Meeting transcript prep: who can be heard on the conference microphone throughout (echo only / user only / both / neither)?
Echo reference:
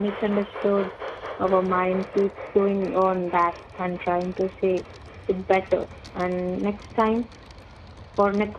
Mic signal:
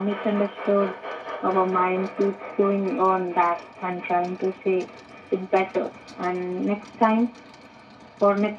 echo only